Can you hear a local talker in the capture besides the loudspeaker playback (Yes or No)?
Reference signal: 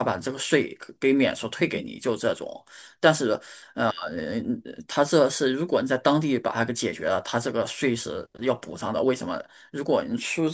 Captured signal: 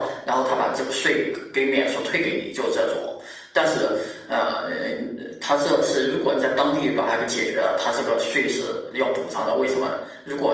No